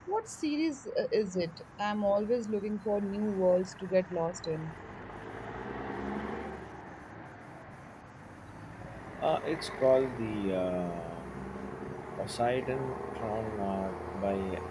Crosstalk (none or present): none